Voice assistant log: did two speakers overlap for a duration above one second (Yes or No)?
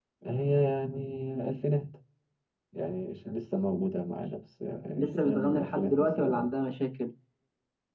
Yes